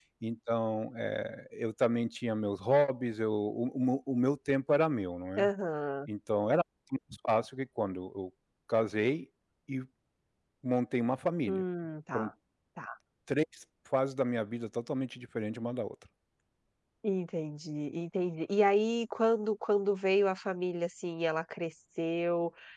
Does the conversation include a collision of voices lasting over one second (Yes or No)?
No